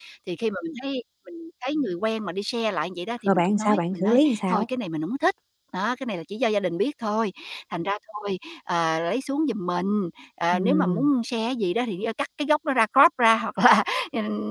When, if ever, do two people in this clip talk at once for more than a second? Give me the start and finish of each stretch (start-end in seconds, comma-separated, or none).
3.3-4.7